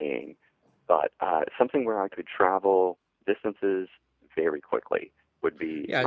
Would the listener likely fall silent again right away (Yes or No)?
No